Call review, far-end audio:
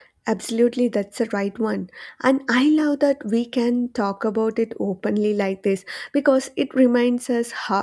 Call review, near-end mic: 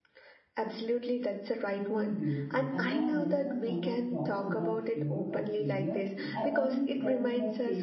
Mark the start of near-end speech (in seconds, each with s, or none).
1.6 s